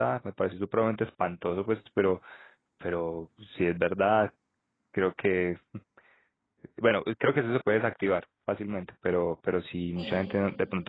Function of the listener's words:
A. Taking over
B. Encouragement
B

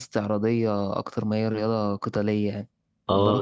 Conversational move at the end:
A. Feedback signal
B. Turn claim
B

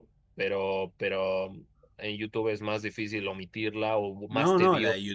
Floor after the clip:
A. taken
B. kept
A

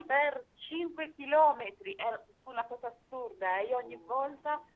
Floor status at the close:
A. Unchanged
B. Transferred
A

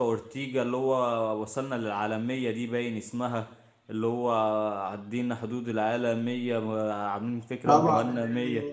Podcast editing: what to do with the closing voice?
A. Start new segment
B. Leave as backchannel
A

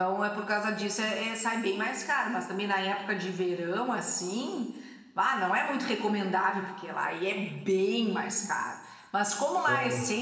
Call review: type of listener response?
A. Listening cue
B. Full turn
A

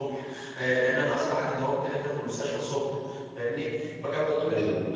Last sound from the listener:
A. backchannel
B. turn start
A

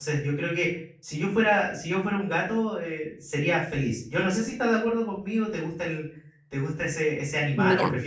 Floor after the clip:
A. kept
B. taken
B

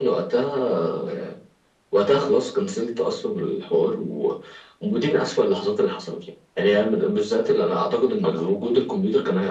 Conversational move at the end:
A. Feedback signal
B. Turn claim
A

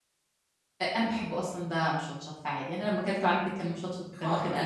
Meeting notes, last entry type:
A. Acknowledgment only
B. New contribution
B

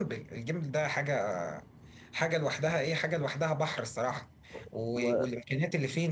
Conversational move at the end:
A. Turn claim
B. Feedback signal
B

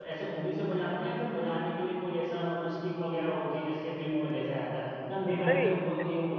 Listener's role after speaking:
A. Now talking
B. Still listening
B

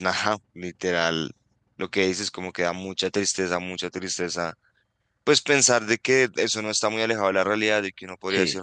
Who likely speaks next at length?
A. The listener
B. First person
B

